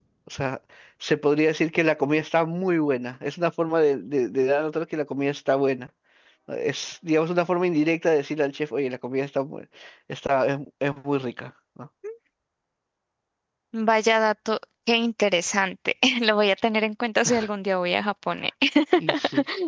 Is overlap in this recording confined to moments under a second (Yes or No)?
Yes